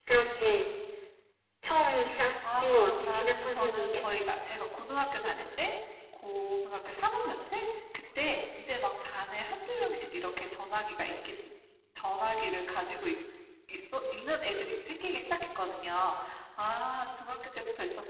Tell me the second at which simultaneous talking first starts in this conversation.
2.4 s

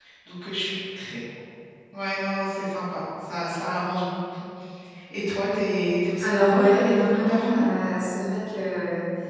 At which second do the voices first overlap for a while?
6.2 s

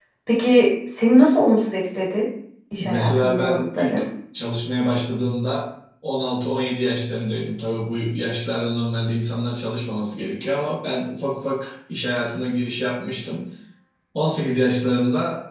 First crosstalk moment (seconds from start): 2.8 s

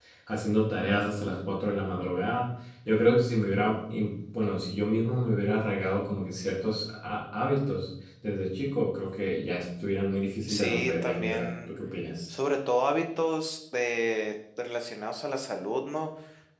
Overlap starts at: 10.5 s

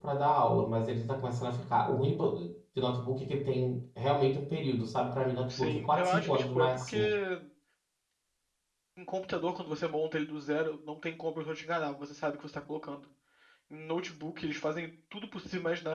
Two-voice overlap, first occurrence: 5.5 s

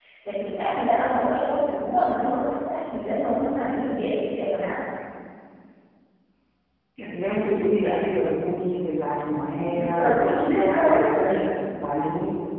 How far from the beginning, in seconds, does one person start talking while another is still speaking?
9.7 s

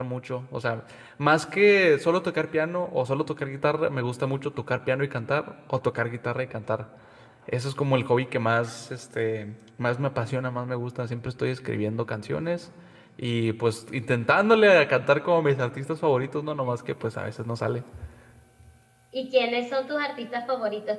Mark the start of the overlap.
none

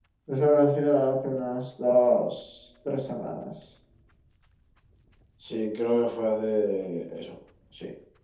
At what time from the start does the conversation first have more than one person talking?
none

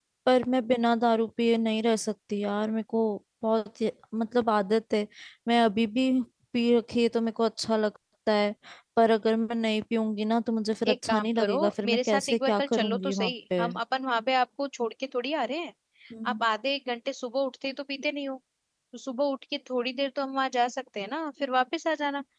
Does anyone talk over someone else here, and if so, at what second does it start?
10.8 s

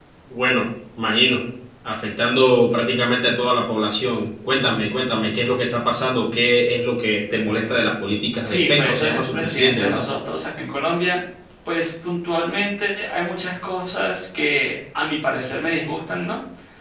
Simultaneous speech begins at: 8.4 s

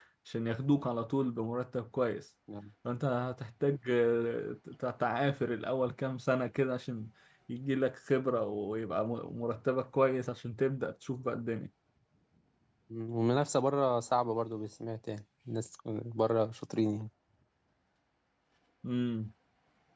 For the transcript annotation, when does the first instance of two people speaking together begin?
none

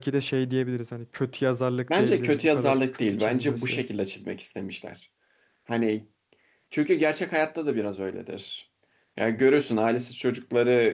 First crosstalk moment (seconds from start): 1.9 s

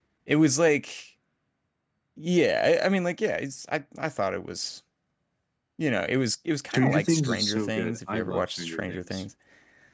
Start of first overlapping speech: 6.7 s

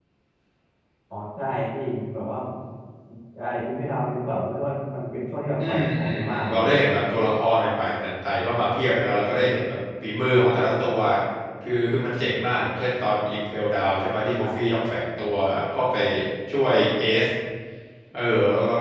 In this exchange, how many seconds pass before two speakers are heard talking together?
5.7 s

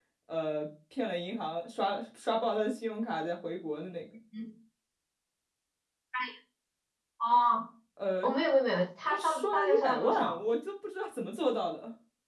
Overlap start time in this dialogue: 9.1 s

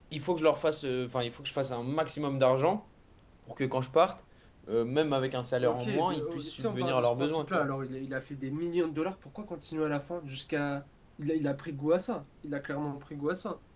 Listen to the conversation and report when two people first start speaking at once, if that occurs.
5.6 s

